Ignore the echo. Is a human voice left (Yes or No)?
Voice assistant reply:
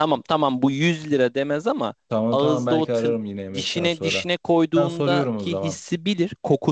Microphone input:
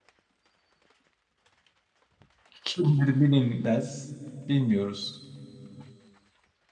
Yes